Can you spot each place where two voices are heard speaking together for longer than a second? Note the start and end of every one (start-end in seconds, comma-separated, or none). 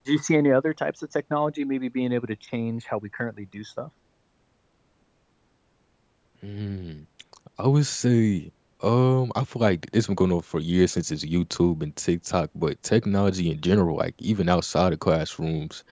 none